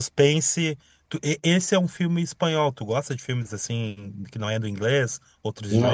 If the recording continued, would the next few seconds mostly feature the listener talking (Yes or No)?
Yes